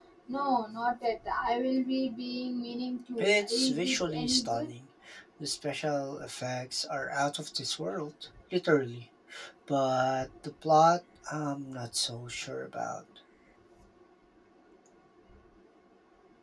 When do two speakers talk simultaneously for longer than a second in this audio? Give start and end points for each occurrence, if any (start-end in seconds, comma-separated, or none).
3.2-4.7